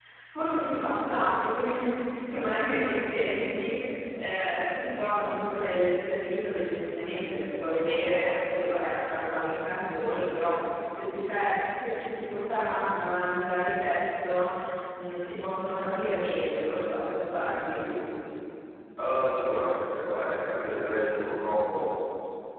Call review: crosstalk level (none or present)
none